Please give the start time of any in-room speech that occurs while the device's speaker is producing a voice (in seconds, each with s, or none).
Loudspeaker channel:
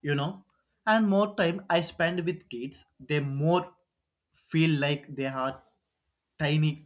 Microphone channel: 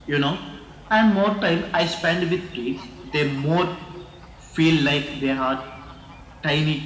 none